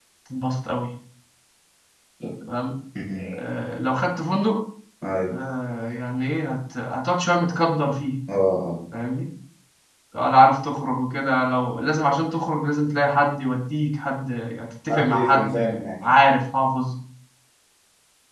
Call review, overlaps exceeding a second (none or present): present